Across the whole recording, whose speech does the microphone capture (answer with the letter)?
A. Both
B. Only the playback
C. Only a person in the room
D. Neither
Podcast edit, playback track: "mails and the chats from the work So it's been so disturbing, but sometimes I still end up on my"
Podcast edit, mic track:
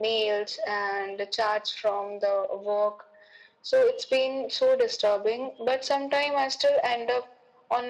B